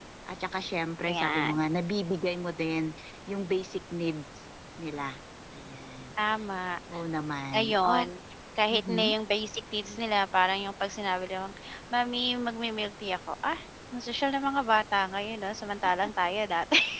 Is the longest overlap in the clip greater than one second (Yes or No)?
No